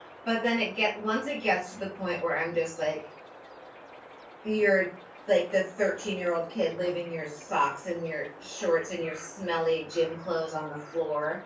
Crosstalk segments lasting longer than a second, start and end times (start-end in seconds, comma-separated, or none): none